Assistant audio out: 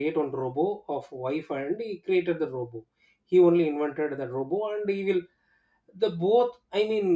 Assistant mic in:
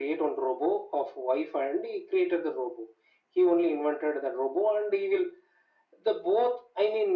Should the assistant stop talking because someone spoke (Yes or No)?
No